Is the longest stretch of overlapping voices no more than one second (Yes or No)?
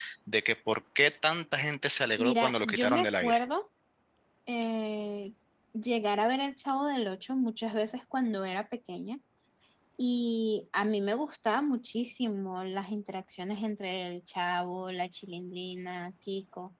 No